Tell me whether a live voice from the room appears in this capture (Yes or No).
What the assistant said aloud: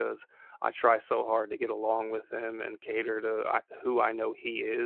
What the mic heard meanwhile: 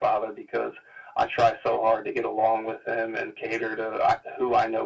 No